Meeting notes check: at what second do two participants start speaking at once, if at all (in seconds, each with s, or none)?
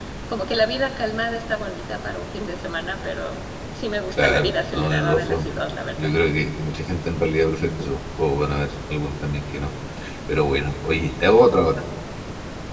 4.2 s